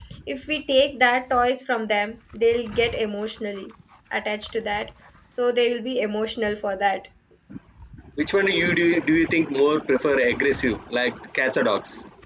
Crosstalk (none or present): none